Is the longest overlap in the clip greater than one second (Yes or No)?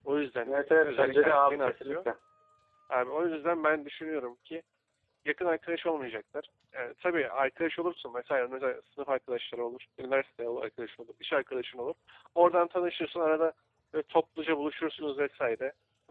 Yes